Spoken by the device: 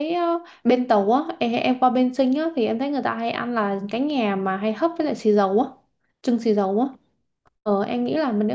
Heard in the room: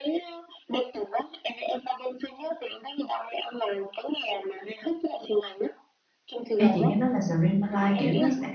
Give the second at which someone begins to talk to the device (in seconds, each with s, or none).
6.6 s